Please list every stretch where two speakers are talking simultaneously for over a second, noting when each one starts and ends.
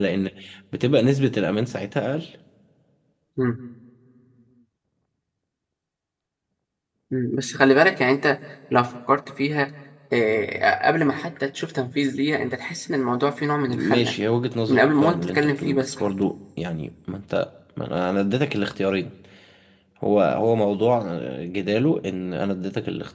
14.7-16.1

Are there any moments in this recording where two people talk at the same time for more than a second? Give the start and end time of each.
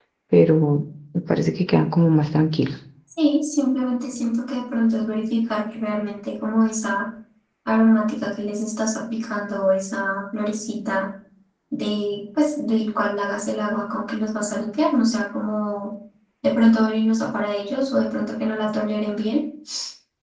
none

